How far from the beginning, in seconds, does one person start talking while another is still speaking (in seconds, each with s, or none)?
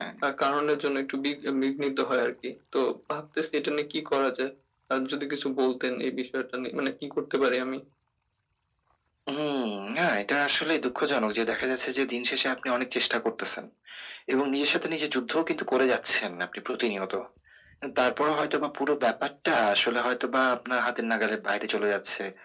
none